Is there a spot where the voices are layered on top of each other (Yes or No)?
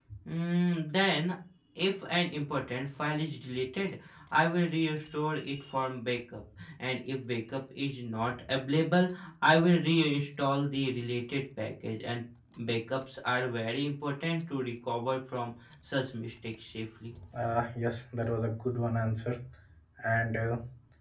No